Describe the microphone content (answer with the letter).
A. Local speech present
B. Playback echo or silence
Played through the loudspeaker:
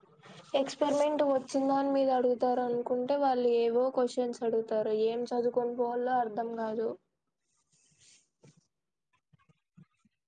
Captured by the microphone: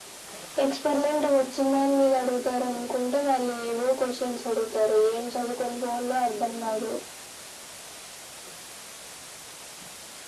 B